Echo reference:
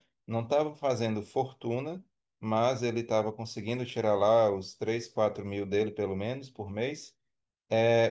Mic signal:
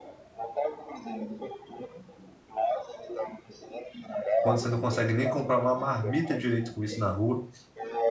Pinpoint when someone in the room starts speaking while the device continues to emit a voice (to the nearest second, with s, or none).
4 s